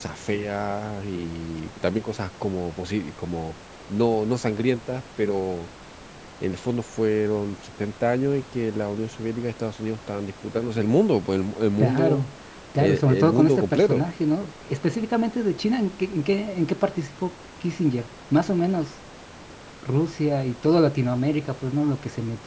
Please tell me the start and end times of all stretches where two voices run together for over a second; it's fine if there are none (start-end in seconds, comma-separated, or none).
12.8-14.0